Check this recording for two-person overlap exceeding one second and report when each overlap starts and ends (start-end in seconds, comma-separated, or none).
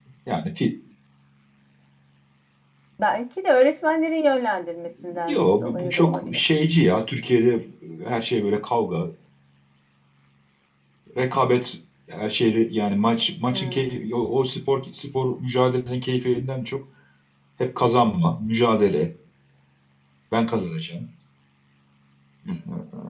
5.2-6.6